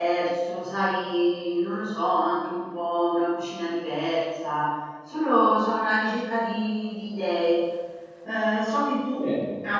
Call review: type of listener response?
listening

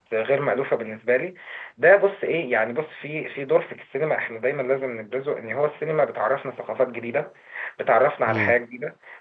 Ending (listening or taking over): listening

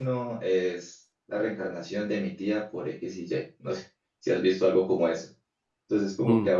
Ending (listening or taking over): listening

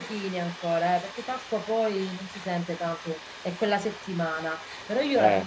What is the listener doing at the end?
listening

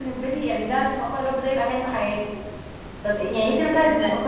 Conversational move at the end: listening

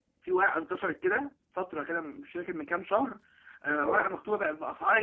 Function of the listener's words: listening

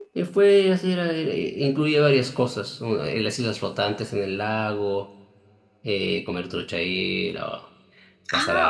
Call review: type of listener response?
taking over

